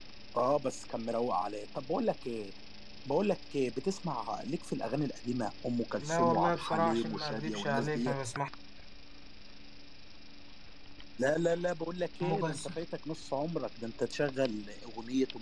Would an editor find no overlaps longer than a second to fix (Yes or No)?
No